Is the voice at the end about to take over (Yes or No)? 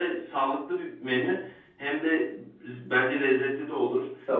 No